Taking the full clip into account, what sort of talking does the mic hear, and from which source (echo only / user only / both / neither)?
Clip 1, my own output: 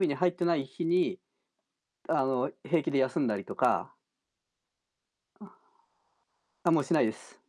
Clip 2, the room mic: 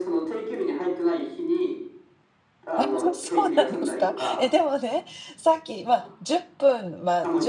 both